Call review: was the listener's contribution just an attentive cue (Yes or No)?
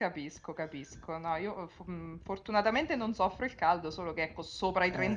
Yes